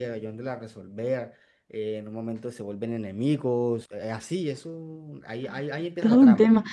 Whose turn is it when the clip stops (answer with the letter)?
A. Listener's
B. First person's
A